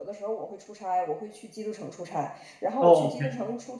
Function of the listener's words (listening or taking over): listening